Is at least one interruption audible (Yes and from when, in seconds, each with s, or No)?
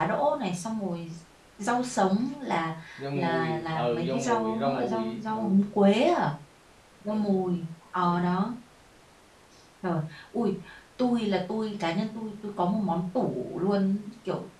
Yes, from 3.2 s